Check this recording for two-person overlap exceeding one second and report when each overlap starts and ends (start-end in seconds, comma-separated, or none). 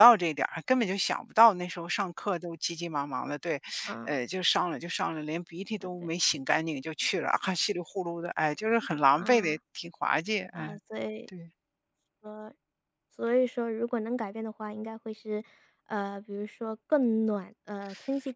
none